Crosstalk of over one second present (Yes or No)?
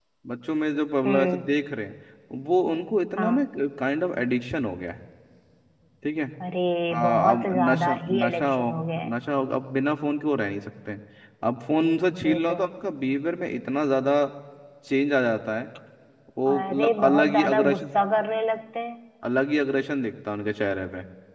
Yes